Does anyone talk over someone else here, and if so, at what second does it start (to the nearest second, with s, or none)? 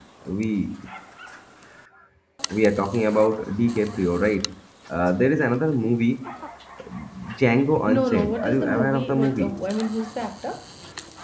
8 s